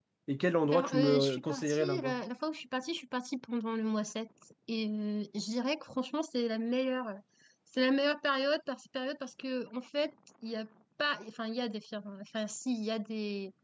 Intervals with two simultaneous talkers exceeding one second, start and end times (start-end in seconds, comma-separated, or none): 0.6-2.2